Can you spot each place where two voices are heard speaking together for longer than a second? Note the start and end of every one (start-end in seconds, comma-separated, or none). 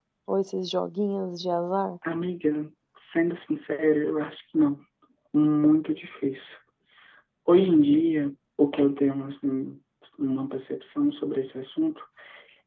none